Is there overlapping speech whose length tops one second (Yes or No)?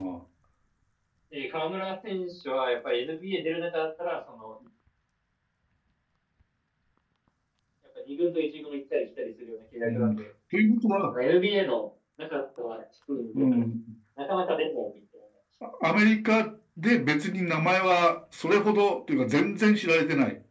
No